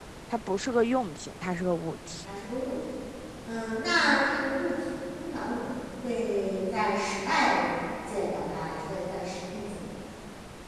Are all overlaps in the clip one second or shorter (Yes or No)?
Yes